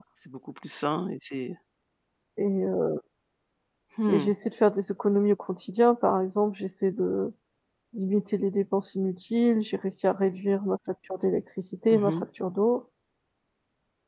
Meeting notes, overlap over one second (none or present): none